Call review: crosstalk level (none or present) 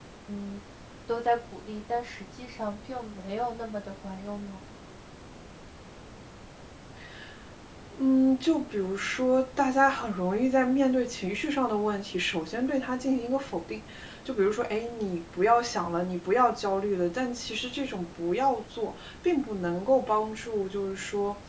none